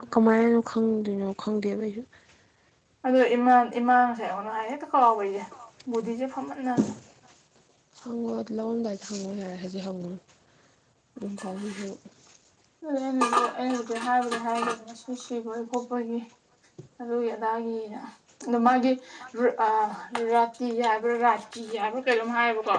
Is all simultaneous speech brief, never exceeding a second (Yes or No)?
Yes